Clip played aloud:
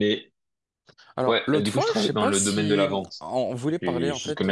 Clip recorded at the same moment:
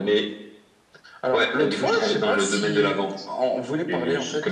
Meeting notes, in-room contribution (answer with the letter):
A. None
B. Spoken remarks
A